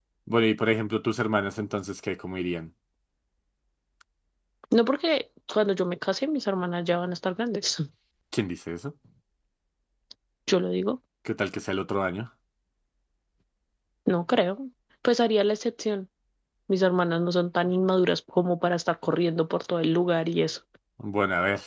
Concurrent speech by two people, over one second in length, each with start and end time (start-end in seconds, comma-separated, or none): none